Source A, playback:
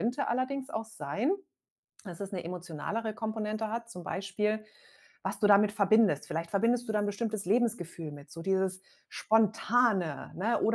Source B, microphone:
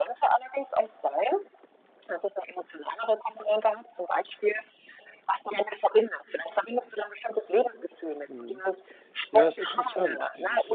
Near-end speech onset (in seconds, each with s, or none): 8.3 s